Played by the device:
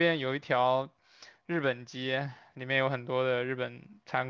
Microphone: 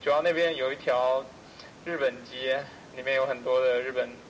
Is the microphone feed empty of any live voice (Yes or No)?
Yes